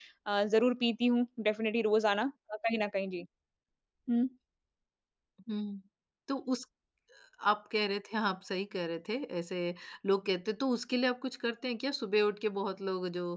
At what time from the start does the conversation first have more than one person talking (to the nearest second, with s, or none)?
none